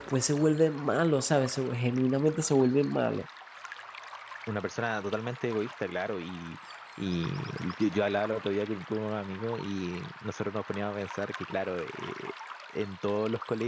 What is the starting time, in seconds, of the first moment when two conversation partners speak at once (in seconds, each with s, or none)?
none